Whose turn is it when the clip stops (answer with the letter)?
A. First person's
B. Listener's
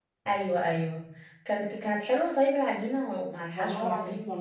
B